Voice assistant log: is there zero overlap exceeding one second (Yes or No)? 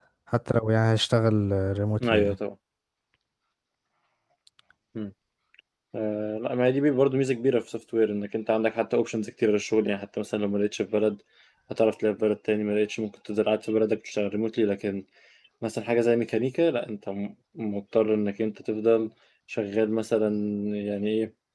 Yes